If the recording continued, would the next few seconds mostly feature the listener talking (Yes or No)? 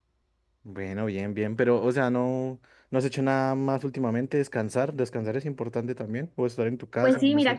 Yes